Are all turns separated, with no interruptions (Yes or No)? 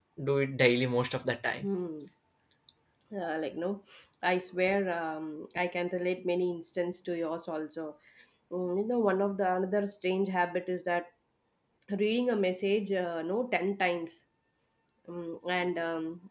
Yes